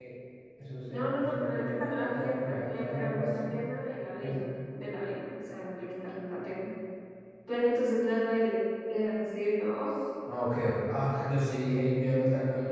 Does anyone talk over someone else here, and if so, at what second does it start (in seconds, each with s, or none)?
0.9 s